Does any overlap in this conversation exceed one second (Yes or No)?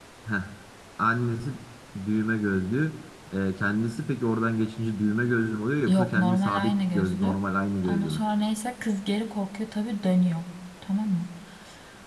Yes